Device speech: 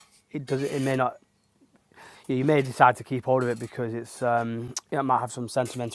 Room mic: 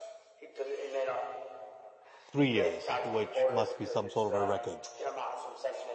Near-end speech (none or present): present